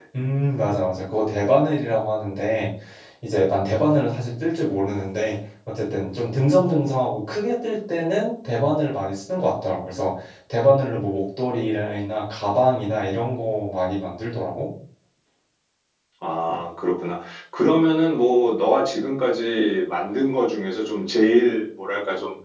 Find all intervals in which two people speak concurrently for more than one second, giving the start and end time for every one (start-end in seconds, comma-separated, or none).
none